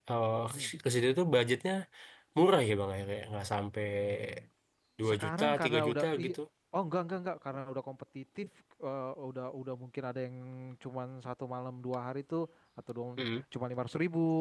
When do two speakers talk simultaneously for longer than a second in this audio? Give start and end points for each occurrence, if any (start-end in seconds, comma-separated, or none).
5.1-6.3